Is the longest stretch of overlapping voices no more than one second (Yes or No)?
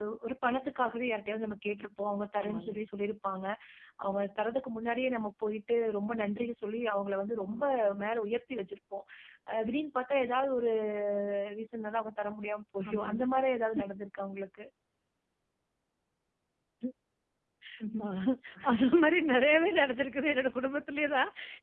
Yes